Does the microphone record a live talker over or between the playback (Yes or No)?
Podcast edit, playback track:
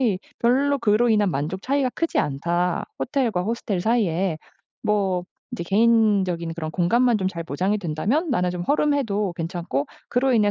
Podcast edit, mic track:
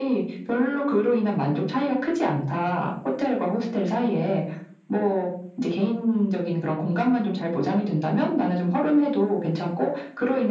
No